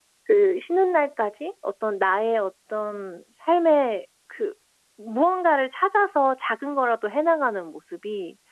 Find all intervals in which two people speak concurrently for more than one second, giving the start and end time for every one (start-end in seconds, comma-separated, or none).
none